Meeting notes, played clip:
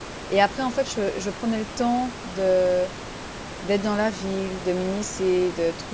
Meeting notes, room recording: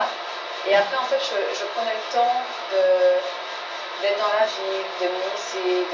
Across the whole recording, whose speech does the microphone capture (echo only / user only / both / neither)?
echo only